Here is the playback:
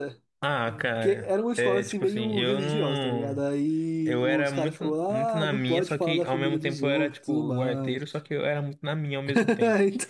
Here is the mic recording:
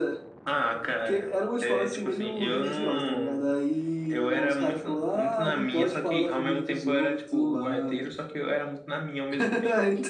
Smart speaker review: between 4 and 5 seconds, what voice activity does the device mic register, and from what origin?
echo only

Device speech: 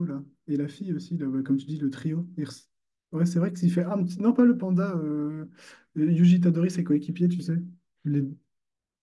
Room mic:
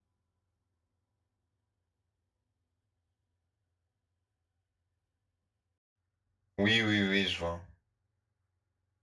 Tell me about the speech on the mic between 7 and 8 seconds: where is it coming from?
user only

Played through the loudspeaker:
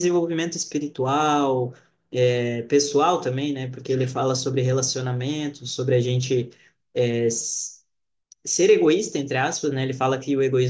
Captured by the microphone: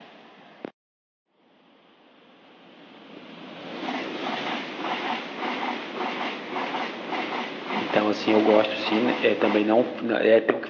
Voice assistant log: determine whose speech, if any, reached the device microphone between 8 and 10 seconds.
user only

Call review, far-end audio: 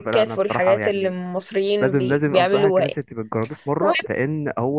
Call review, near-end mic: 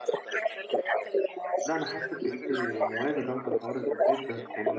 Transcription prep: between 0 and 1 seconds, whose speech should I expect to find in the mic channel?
echo only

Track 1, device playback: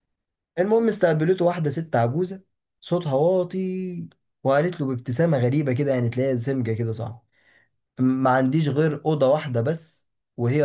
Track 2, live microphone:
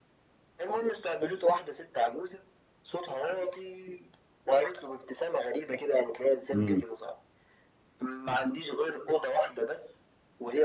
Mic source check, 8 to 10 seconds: echo only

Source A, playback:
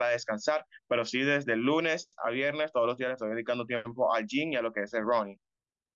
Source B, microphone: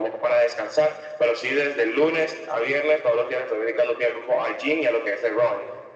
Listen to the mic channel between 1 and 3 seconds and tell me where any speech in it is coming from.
echo only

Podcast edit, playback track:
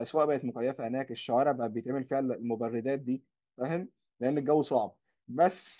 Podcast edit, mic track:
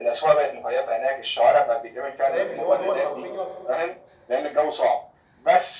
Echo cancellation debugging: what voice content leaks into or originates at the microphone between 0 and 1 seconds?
echo only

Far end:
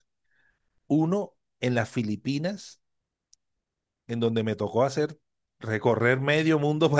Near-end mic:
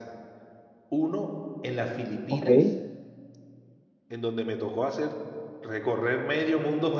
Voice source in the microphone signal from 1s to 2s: echo only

